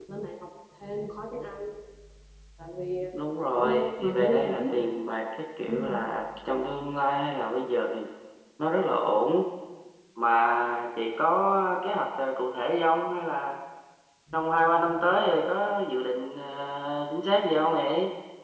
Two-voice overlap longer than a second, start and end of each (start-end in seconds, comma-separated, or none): 3.6-4.9